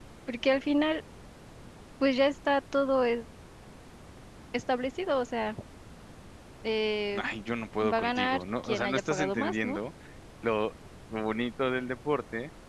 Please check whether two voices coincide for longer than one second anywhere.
Yes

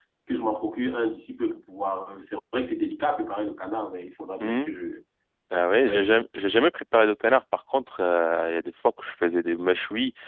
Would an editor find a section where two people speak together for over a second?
No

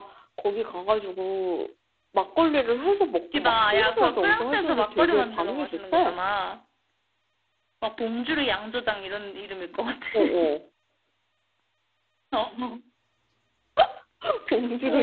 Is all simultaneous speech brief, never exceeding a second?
No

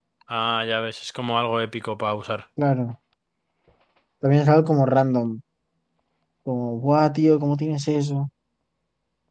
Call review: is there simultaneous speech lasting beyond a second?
No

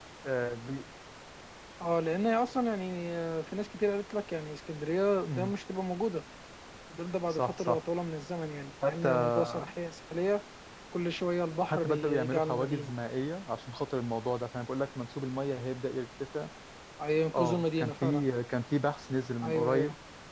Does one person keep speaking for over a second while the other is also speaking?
Yes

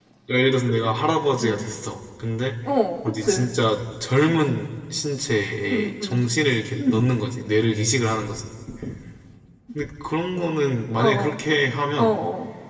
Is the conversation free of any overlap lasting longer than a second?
Yes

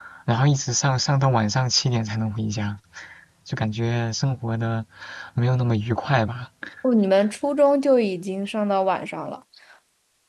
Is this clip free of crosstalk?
Yes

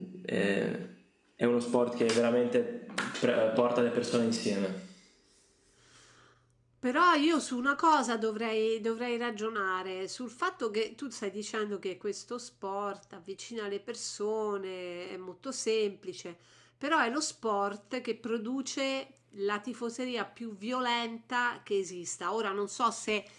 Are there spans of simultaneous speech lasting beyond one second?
No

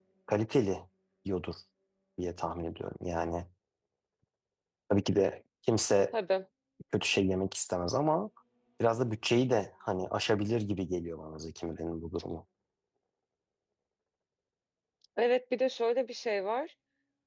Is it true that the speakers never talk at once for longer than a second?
Yes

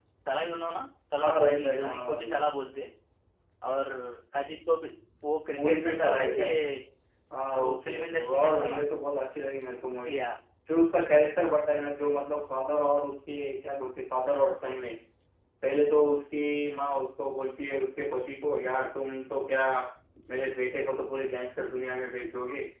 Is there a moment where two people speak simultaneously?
Yes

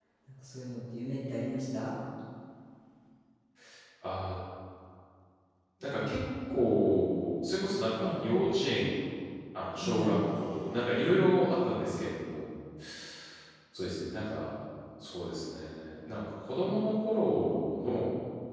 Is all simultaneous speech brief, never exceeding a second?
Yes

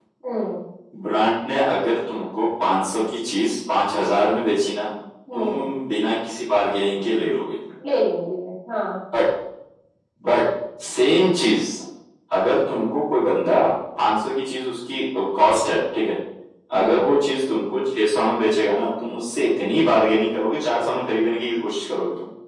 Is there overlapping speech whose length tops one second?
No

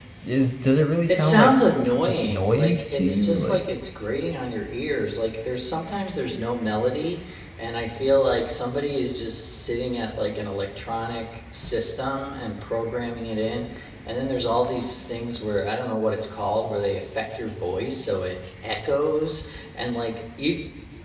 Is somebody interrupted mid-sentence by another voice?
Yes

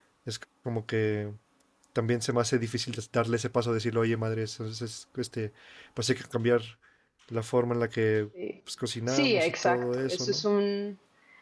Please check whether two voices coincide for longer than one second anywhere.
Yes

